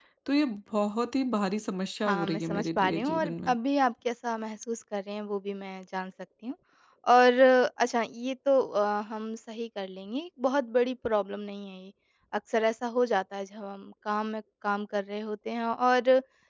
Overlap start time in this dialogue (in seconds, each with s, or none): 2.0 s